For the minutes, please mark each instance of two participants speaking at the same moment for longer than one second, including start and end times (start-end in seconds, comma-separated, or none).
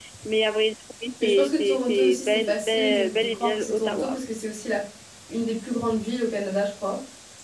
1.2-4.2